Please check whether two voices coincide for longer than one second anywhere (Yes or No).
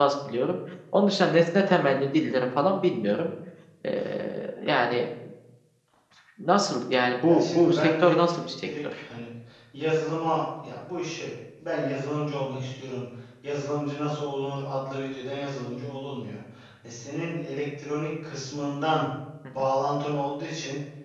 Yes